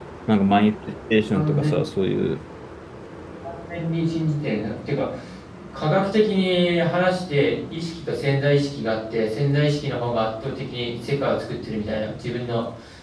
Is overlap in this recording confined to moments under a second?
Yes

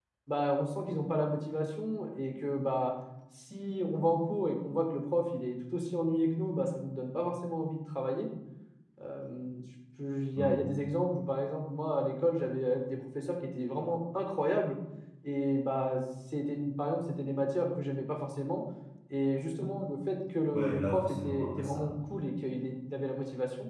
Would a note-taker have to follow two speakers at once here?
Yes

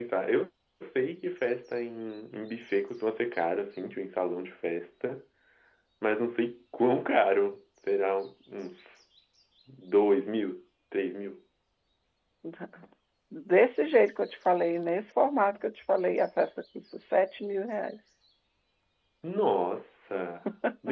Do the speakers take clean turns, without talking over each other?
Yes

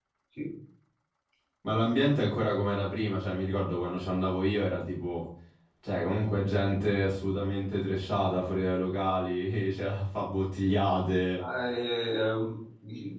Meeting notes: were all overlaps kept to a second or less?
Yes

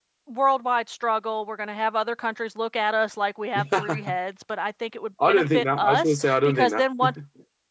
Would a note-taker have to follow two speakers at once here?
Yes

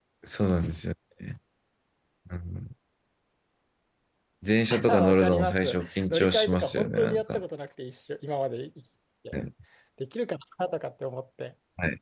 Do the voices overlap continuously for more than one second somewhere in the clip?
Yes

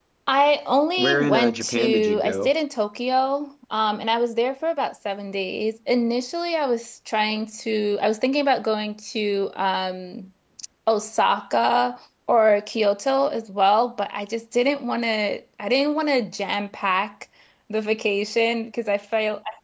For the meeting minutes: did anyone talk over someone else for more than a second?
Yes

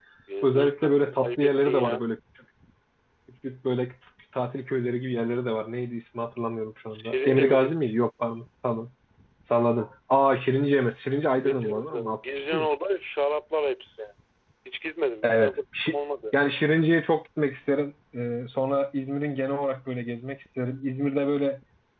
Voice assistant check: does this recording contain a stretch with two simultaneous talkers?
Yes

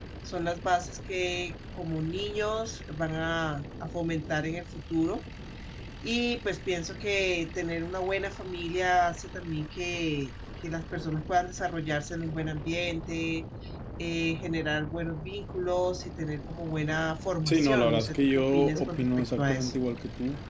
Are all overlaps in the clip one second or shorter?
No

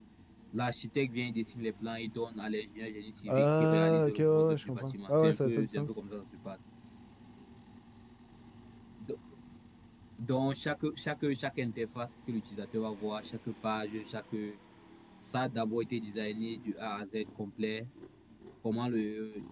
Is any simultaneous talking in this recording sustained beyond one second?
Yes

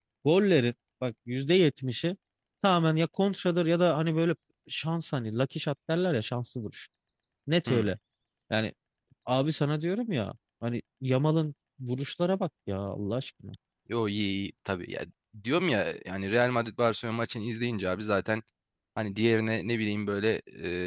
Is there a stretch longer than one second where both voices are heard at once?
No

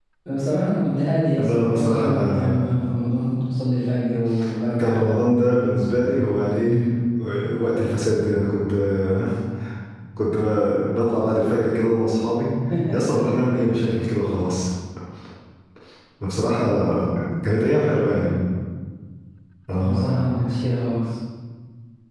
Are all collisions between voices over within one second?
No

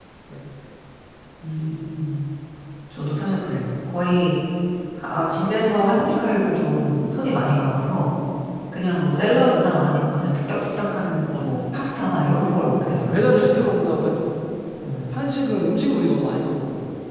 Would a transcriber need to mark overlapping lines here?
Yes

